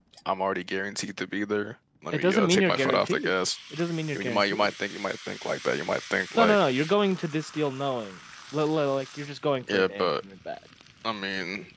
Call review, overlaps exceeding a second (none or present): present